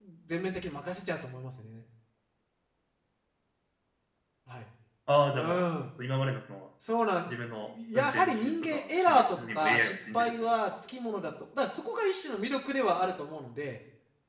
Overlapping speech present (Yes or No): Yes